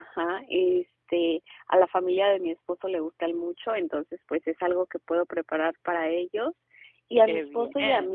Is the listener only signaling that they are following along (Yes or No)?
Yes